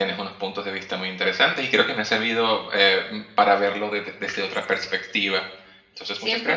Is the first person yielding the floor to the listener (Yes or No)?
Yes